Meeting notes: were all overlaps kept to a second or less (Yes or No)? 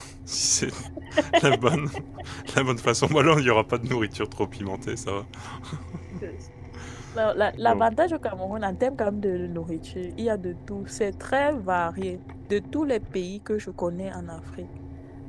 Yes